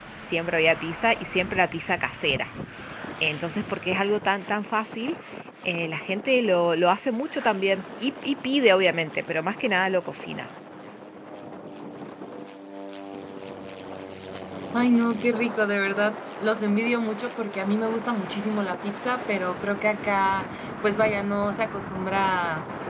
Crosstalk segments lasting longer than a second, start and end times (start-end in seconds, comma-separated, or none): none